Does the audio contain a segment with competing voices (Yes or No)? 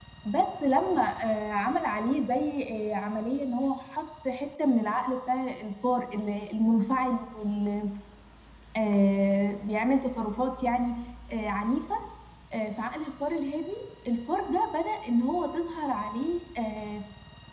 No